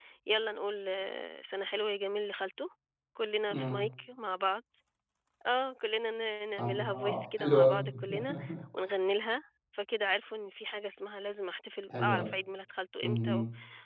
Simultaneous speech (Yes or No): Yes